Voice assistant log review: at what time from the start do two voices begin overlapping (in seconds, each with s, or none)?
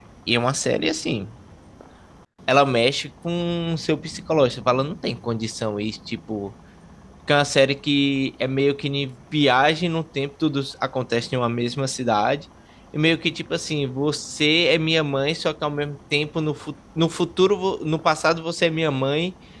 none